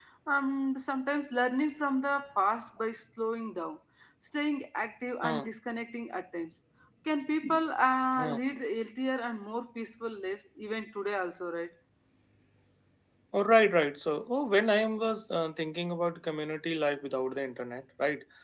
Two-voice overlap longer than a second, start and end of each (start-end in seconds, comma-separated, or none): none